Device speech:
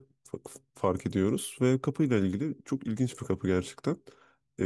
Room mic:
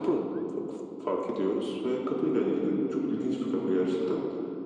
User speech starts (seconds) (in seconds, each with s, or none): none